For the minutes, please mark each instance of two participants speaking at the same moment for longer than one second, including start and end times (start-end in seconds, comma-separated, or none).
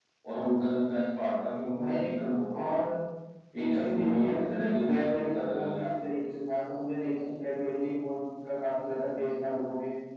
3.6-5.8